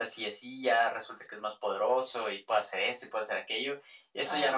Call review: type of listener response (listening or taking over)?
taking over